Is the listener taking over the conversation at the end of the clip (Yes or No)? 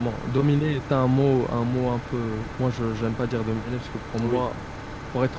No